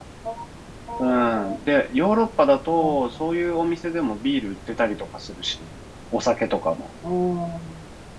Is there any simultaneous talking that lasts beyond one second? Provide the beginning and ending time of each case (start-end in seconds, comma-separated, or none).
none